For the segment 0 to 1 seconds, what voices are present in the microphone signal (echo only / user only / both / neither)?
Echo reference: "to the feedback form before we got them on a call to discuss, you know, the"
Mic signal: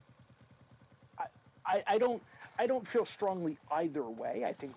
neither